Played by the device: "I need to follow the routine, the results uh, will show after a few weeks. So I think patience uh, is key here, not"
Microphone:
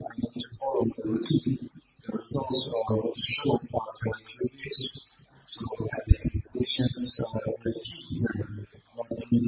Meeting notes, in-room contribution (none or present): none